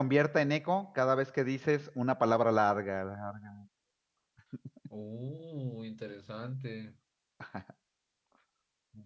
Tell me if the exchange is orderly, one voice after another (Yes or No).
Yes